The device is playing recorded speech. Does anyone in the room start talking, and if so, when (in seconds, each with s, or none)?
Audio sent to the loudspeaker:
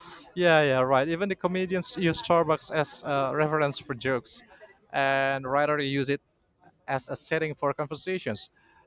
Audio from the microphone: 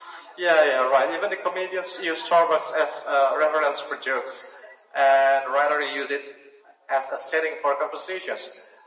none